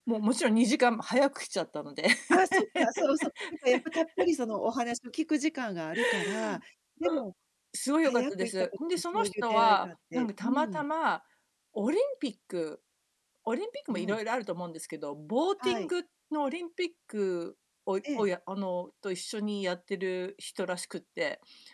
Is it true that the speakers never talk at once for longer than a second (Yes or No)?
No